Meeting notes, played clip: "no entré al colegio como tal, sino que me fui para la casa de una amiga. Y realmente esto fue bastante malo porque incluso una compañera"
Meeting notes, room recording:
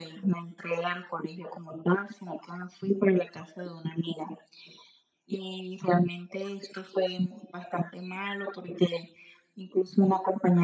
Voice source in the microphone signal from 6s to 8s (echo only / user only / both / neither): echo only